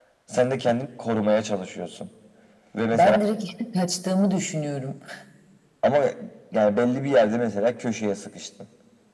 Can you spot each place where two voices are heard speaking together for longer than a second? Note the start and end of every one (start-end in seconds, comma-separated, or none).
none